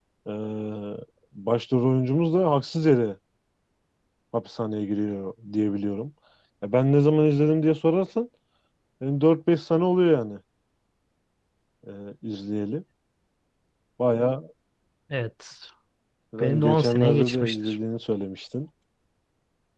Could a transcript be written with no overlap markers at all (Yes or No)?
No